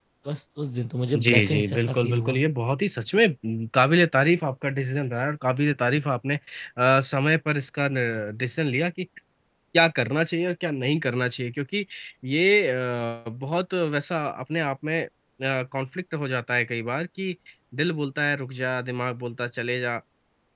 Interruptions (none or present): present